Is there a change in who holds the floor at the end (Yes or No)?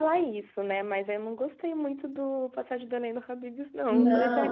Yes